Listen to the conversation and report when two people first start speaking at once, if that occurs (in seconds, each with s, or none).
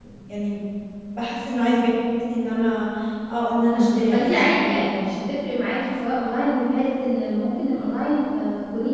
3.6 s